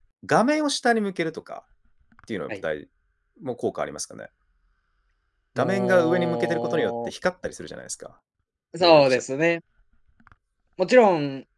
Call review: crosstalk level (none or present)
present